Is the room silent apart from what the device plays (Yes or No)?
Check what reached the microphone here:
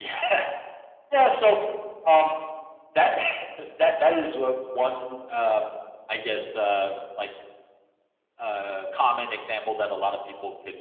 Yes